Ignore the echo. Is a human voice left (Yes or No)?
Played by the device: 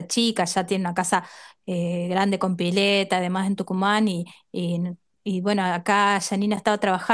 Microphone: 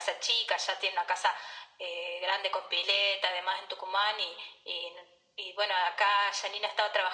No